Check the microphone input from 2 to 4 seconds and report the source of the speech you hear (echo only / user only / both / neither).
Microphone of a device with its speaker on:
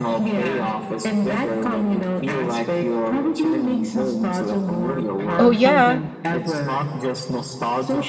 echo only